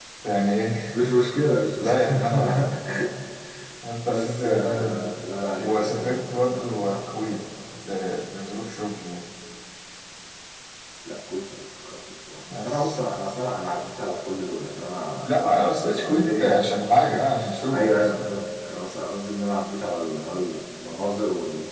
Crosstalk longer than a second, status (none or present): present